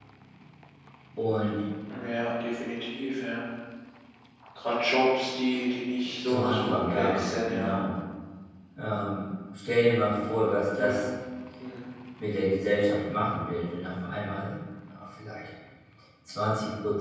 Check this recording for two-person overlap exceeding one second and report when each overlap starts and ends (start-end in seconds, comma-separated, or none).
6.3-7.8